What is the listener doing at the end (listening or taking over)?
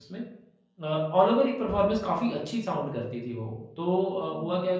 listening